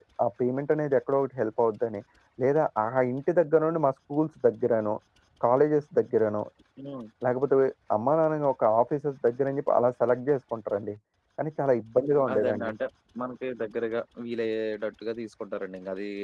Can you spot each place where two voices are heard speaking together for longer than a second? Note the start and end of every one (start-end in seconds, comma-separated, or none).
none